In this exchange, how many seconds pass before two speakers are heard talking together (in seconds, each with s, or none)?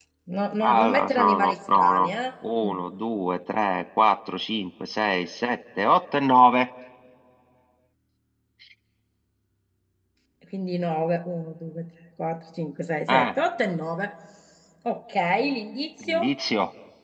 0.6 s